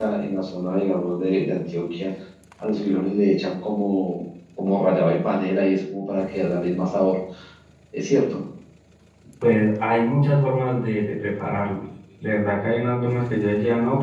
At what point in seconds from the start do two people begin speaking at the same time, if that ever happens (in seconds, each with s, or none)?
none